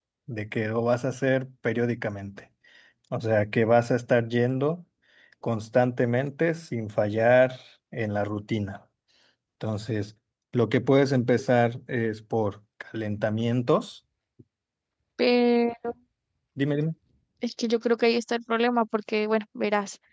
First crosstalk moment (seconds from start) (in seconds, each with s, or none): none